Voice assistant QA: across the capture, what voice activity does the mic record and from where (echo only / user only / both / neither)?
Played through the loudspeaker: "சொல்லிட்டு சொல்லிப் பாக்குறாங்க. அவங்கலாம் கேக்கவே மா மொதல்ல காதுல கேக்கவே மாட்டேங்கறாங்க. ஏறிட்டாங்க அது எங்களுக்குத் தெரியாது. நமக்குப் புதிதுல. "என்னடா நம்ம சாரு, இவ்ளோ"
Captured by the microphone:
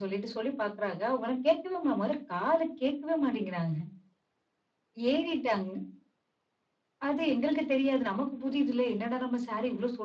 echo only